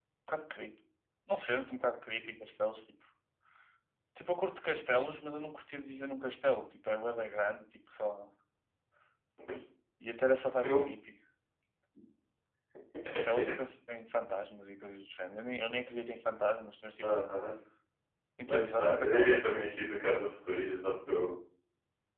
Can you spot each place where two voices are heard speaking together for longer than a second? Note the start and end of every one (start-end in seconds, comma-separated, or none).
18.5-19.7